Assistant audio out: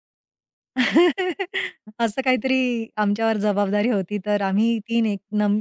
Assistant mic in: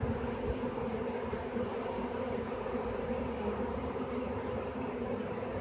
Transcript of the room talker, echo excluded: none

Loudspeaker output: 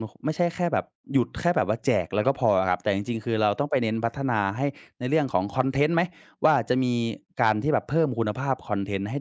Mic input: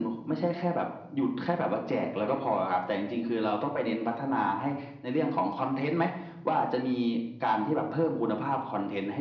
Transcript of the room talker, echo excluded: none

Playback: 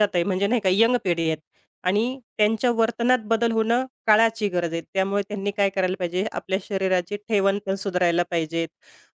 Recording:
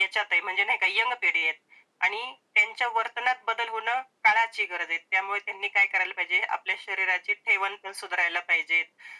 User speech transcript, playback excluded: none

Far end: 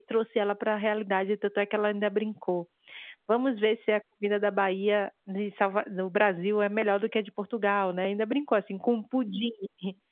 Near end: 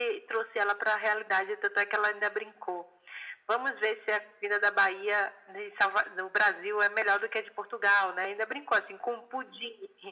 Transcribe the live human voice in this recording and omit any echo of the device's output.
none

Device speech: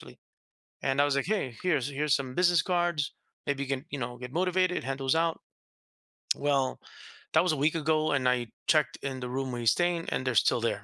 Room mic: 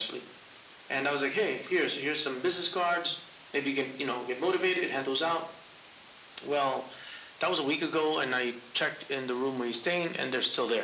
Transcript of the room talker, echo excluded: none

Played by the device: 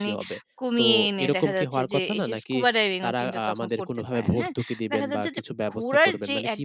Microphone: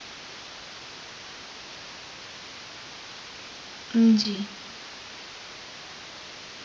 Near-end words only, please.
উম জি,

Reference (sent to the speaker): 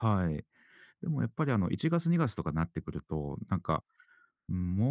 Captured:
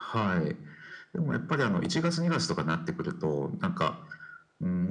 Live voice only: none

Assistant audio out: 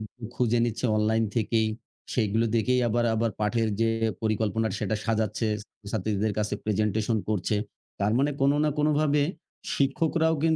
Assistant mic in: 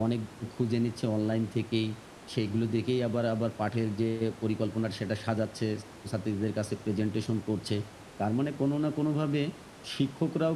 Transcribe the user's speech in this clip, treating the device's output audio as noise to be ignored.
none

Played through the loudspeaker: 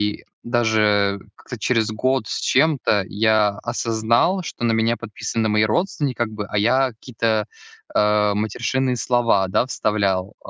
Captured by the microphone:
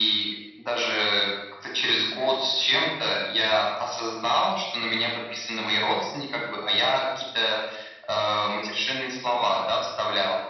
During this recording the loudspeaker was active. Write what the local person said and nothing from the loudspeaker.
none

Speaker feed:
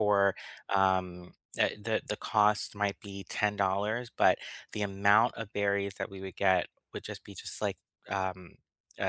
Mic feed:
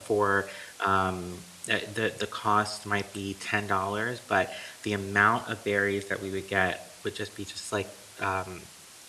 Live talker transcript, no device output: none

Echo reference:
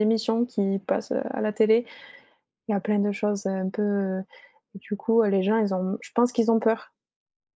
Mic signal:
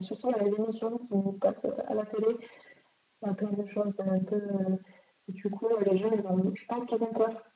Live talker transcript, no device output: none

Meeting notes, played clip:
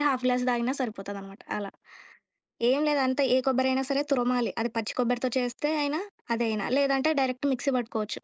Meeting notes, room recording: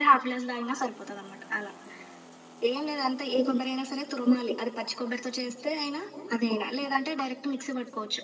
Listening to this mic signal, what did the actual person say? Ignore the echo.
none

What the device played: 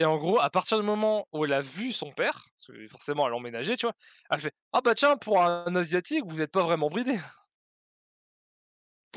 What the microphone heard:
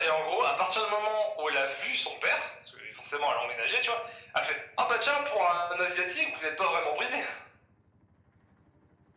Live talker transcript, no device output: none

